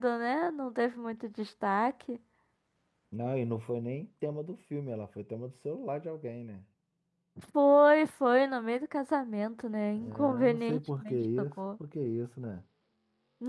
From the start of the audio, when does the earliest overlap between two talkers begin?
10 s

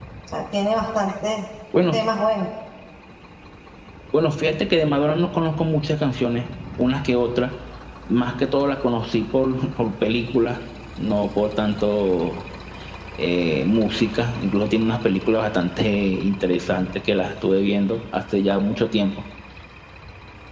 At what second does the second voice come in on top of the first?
none

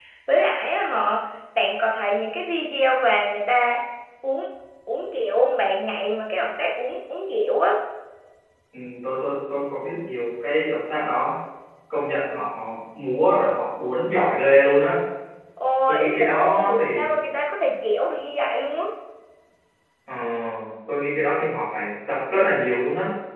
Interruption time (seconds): 16 s

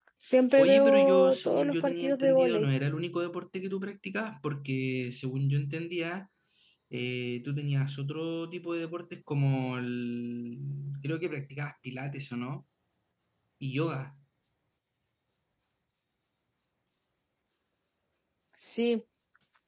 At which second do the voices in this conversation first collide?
1 s

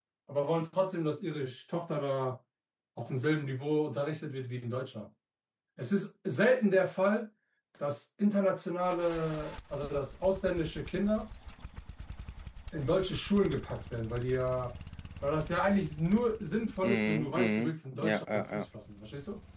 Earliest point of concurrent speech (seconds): 17 s

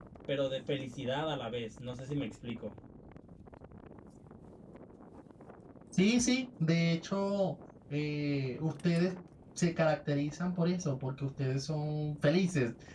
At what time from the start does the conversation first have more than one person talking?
none

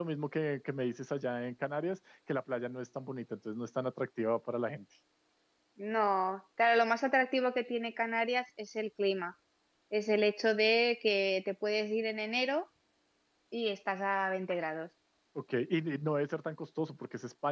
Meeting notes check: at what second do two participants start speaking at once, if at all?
none

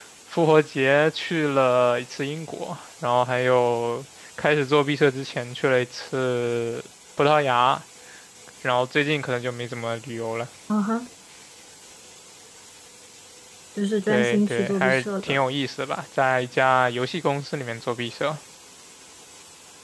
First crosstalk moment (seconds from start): 14 s

